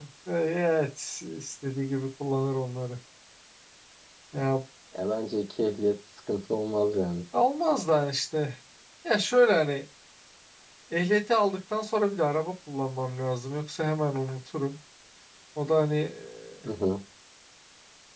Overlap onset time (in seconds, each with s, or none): none